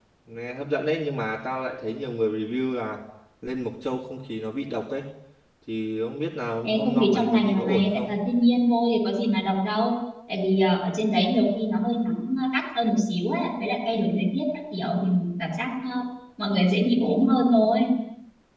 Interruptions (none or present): present